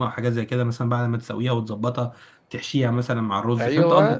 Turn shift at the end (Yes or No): No